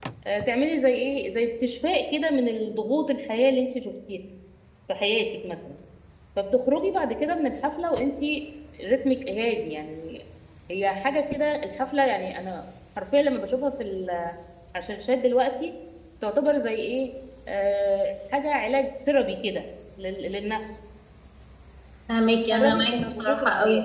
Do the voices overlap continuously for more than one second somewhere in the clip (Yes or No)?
Yes